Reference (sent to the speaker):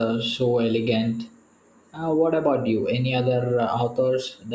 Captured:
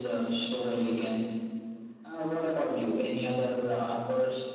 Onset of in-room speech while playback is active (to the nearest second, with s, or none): none